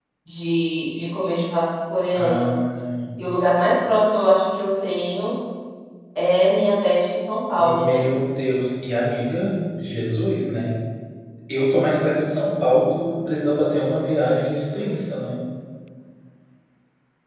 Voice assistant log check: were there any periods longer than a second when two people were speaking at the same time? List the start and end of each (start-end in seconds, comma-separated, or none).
none